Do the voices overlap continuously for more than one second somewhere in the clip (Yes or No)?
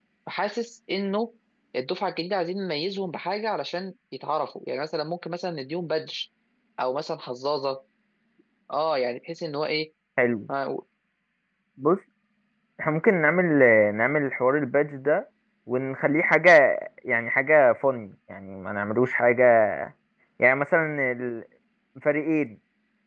No